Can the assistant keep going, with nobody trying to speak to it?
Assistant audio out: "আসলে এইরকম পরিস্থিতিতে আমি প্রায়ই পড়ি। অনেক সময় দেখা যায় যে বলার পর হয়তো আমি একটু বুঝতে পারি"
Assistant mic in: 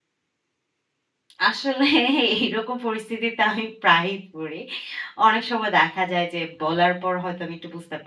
Yes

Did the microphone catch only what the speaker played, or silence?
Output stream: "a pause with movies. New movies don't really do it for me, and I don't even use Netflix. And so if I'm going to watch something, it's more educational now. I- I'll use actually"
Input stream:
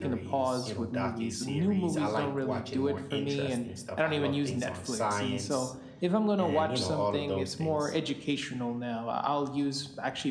No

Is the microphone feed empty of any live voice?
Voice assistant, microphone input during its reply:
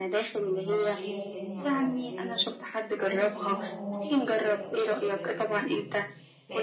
No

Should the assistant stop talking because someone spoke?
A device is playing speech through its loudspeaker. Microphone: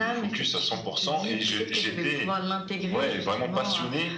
No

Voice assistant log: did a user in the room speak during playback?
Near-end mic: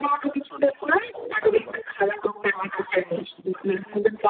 Yes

